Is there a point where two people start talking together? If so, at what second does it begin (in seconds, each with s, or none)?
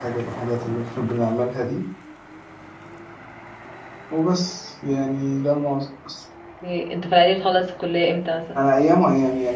none